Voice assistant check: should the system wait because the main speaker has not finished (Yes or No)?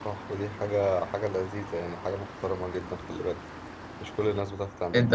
No